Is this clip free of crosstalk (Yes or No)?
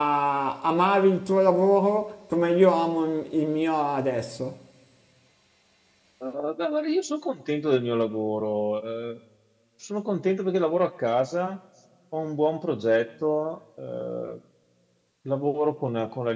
Yes